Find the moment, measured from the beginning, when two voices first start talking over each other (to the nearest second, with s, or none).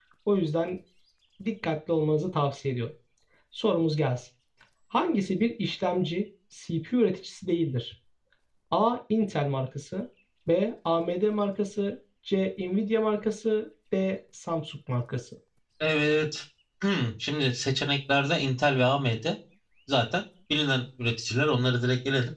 none